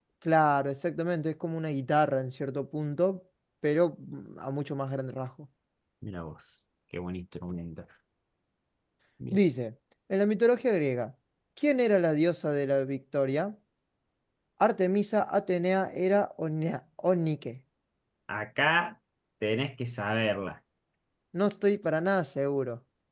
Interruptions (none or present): none